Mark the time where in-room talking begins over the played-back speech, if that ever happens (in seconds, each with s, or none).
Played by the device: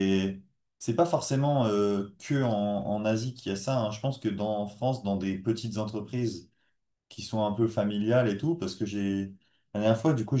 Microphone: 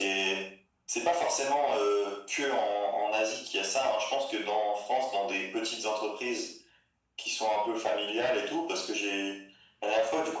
none